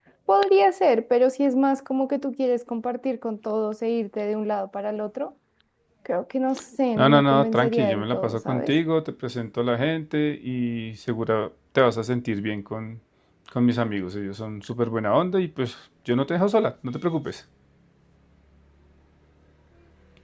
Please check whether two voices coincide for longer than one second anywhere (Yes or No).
Yes